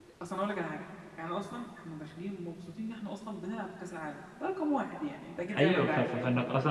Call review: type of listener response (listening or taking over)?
taking over